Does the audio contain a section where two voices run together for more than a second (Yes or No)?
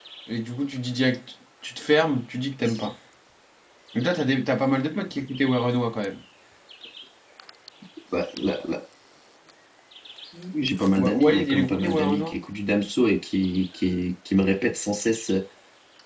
Yes